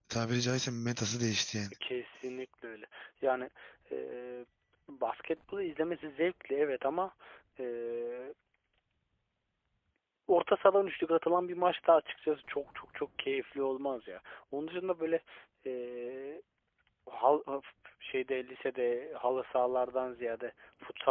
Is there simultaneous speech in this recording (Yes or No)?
No